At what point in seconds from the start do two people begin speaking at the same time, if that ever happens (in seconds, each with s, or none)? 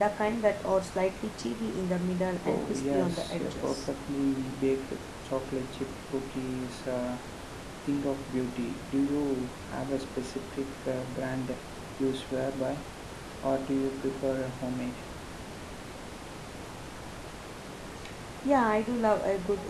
2.5 s